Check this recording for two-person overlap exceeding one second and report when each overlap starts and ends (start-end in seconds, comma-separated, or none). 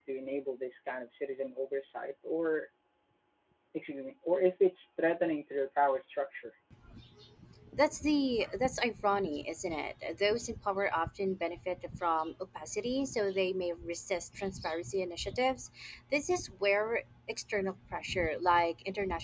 none